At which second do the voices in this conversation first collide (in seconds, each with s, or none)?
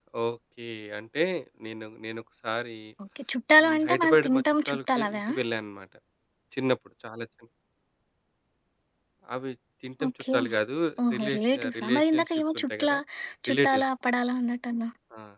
3.6 s